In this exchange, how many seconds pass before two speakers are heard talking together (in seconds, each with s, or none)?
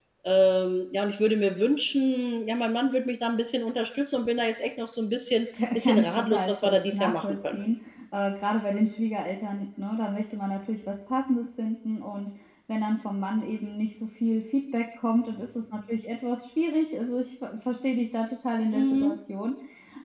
5.8 s